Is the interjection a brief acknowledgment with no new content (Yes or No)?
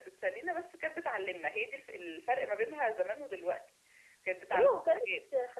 No